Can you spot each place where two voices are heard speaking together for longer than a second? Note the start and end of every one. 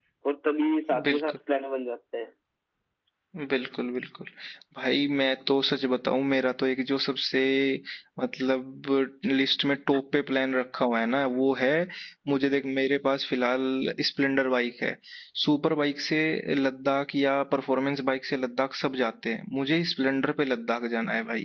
none

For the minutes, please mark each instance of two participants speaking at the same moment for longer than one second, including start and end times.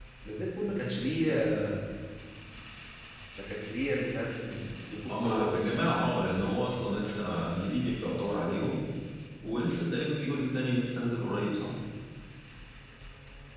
none

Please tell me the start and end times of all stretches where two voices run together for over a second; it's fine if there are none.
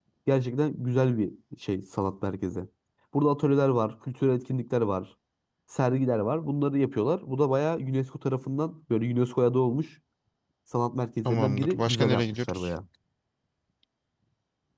11.2-12.7

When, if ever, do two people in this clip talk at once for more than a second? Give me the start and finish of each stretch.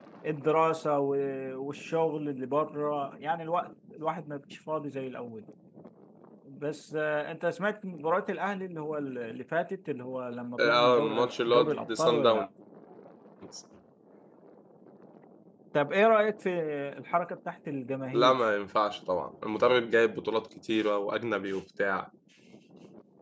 10.6-12.5

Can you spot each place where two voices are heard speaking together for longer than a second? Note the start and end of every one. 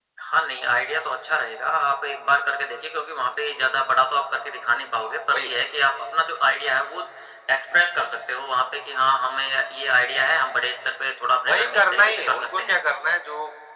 11.5-12.7

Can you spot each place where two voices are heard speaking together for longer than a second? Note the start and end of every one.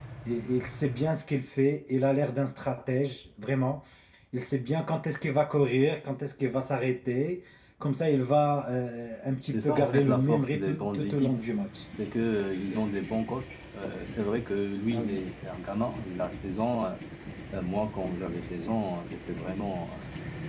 9.5-11.3

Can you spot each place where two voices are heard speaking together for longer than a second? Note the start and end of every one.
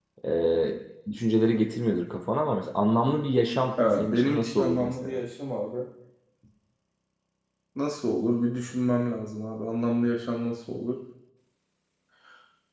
4.0-5.2

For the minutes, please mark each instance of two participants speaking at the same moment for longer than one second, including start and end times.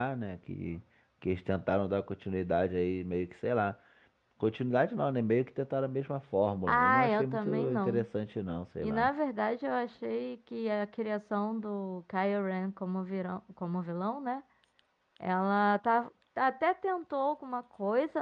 6.7-8.1

